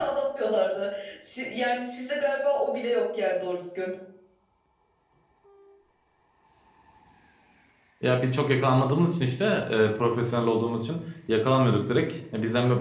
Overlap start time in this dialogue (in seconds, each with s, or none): none